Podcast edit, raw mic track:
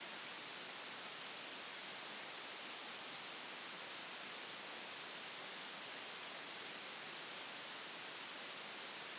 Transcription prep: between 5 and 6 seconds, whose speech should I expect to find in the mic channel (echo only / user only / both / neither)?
neither